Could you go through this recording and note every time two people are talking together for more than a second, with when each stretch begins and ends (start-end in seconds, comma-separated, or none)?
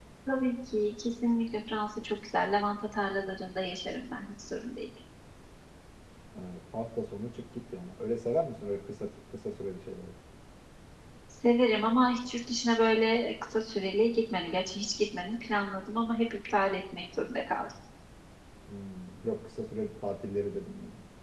none